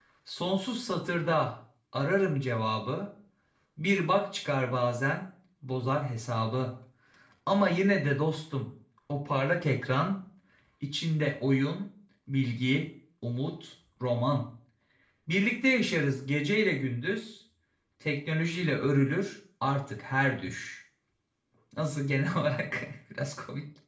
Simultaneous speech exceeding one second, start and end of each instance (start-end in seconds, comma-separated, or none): none